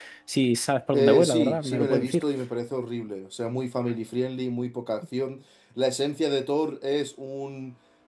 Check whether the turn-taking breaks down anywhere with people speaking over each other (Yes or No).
Yes